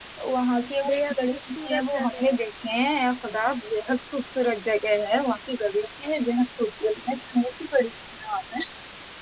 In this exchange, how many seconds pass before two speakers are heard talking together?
0.8 s

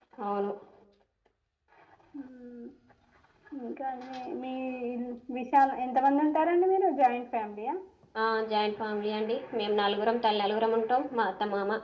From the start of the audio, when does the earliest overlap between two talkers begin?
none

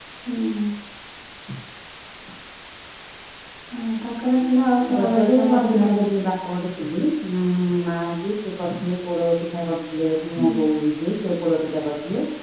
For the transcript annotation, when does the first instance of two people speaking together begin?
4.9 s

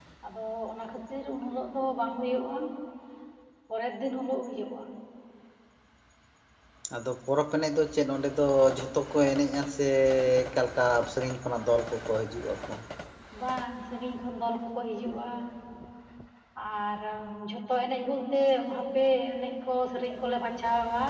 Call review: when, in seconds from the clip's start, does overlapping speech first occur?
none

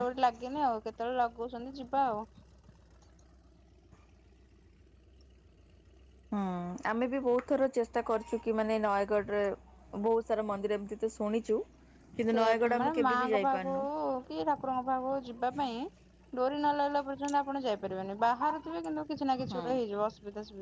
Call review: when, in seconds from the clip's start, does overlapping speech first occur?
12.3 s

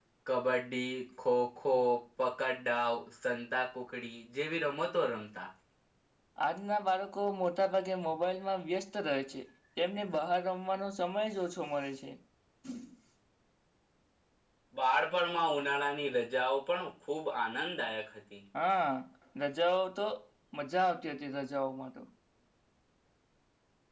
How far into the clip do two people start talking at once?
none

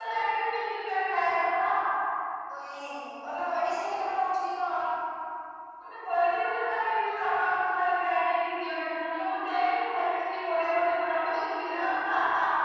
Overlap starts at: none

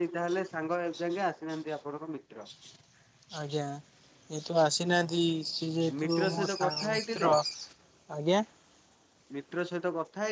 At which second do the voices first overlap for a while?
5.9 s

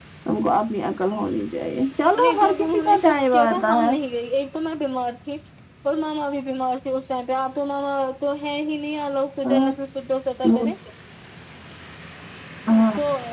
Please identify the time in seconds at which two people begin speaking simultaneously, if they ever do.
2.1 s

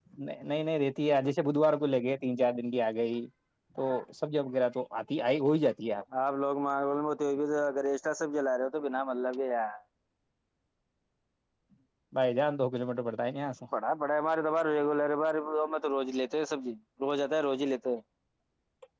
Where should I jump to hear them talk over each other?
none

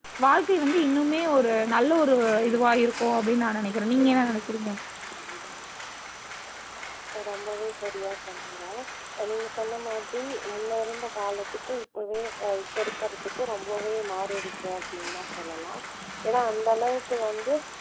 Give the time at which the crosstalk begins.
none

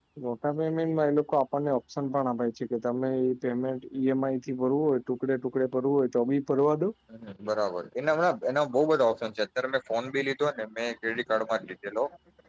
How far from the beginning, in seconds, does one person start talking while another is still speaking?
none

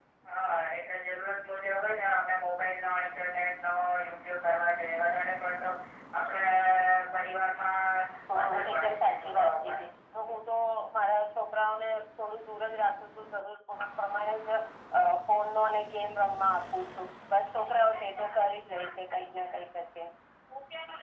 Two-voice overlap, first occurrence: 8.4 s

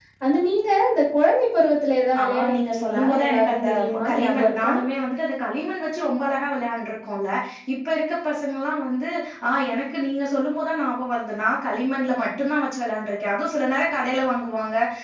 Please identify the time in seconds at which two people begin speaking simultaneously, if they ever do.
2.1 s

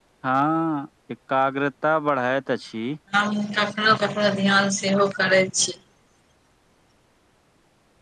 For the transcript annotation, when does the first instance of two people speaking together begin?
none

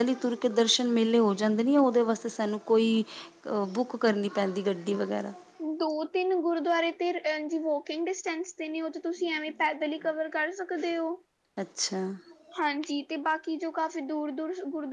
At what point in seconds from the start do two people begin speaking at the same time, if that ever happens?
none

